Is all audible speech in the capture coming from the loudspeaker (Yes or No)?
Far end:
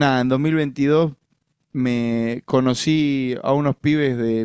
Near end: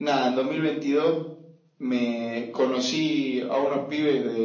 Yes